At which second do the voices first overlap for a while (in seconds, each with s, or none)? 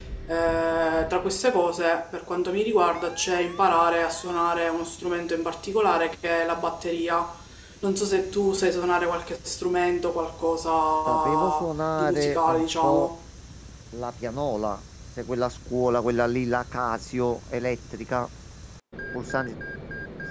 11.1 s